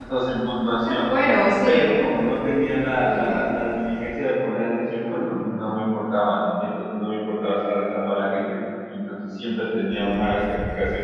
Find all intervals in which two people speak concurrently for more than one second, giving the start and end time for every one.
none

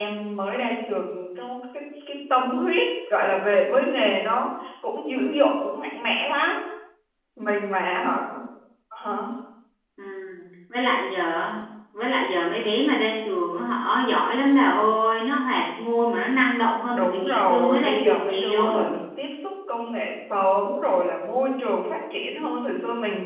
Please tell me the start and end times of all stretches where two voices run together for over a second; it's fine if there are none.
16.9-19.0

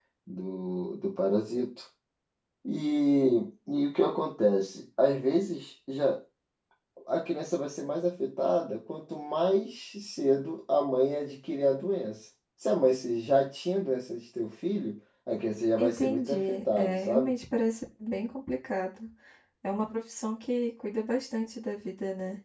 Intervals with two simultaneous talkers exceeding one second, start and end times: 15.8-17.3

